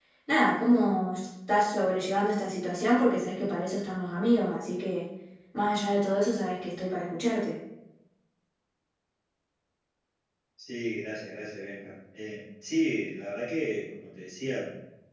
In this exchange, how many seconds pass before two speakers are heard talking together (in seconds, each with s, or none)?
none